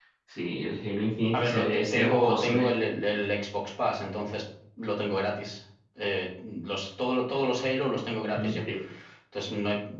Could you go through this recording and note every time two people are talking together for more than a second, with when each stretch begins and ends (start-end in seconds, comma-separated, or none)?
1.3-2.7